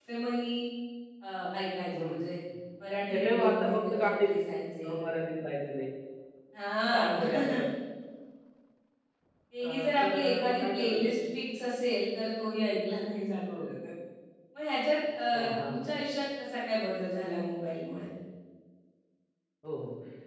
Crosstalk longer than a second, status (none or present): present